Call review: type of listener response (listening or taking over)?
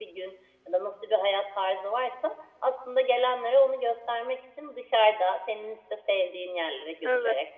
listening